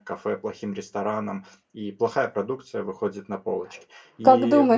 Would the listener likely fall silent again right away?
No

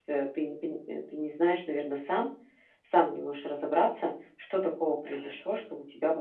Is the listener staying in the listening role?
Yes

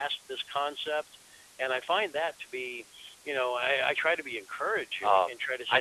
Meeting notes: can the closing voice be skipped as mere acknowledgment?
No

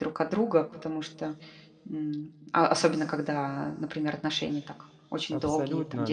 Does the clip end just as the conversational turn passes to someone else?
Yes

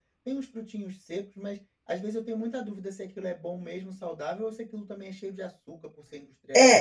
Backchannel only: No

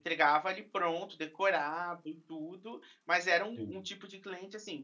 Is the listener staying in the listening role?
Yes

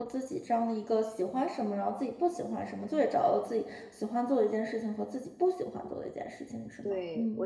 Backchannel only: No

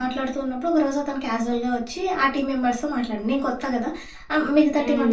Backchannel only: Yes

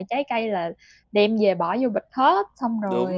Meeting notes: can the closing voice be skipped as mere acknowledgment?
No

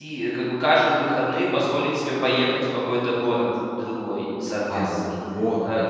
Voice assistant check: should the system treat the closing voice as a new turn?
Yes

